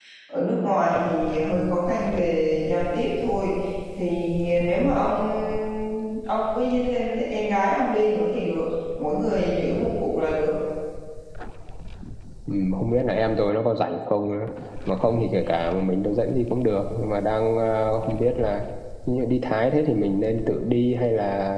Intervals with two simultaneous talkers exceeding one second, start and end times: none

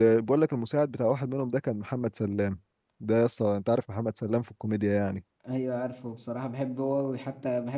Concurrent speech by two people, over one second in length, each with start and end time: none

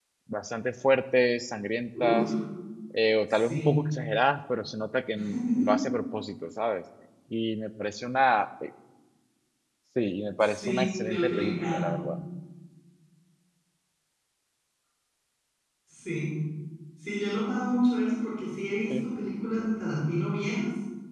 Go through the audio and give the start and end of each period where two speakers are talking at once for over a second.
10.4-11.8

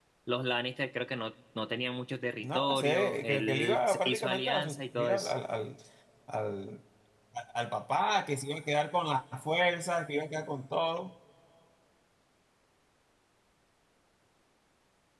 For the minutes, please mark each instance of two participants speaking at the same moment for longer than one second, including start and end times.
2.4-5.3

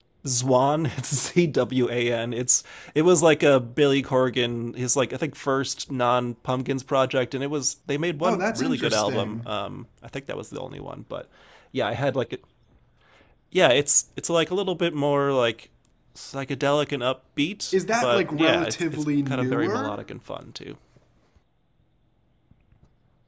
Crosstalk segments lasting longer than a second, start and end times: 8.2-9.5, 17.7-20.0

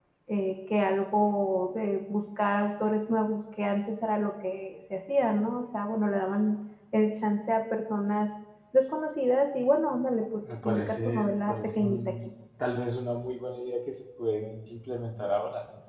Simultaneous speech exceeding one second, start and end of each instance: 10.6-12.2

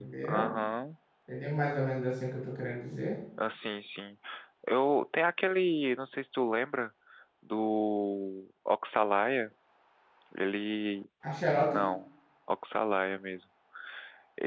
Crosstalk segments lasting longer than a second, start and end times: none

